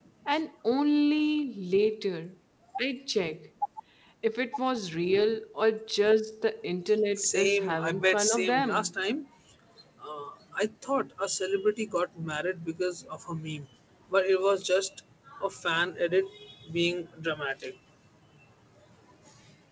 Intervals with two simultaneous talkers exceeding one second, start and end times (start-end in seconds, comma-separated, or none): 7.2-8.9